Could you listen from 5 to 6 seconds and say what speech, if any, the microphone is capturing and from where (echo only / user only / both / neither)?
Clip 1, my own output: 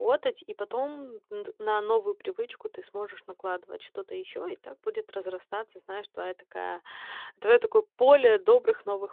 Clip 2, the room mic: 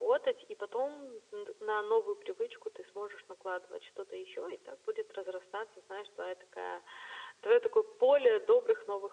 echo only